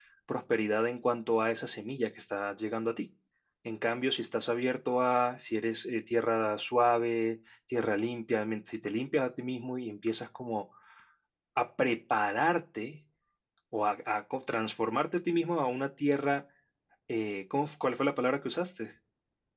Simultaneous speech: No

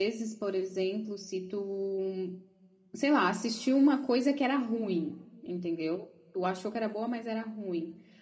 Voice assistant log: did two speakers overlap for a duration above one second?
No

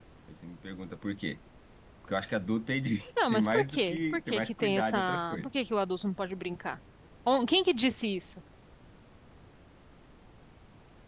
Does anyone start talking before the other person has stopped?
Yes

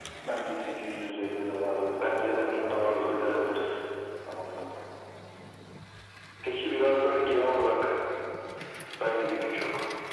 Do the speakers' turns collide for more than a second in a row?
Yes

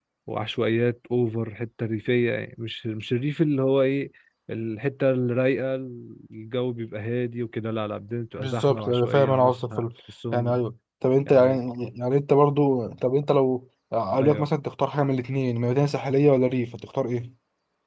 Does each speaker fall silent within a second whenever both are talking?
No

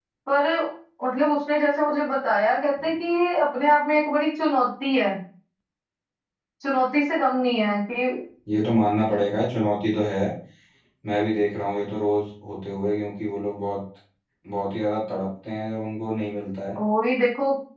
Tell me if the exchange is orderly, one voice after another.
Yes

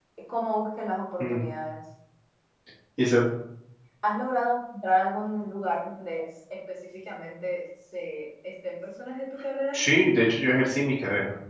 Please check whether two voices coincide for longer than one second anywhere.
No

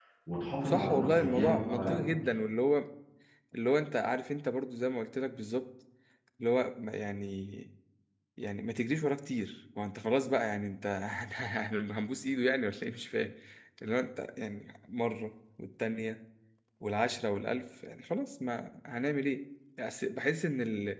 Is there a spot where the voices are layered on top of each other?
Yes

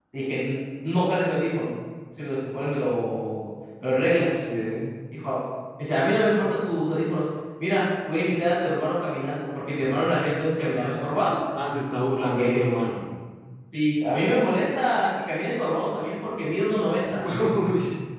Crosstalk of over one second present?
No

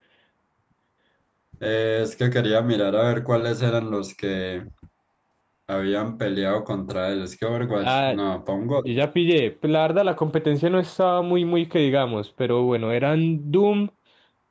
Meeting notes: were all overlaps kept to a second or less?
Yes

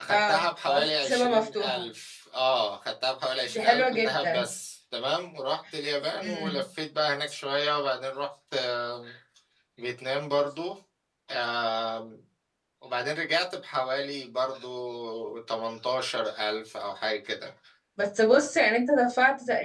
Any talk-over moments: Yes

